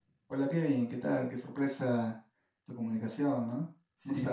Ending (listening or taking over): taking over